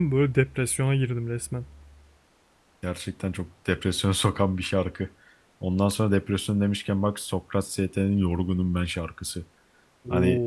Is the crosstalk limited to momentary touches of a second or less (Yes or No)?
Yes